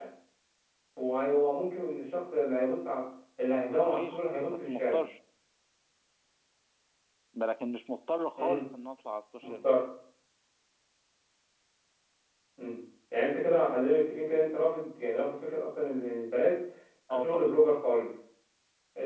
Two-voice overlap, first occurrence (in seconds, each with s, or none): 3.7 s